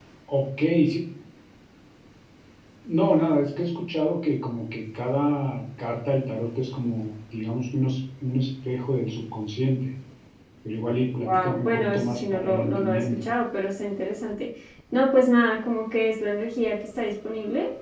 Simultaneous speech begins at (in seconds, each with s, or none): 11.3 s